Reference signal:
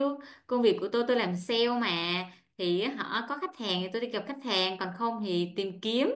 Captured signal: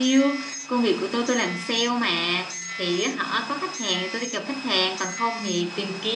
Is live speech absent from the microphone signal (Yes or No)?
Yes